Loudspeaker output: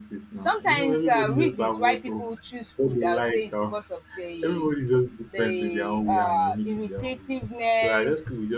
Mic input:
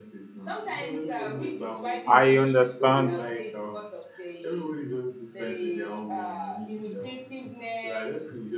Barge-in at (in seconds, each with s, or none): 2.1 s